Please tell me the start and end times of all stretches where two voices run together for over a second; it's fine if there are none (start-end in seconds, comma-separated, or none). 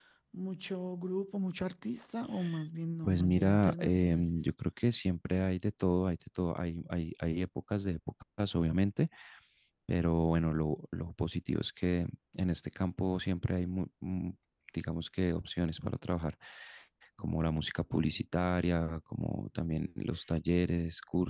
3.0-4.3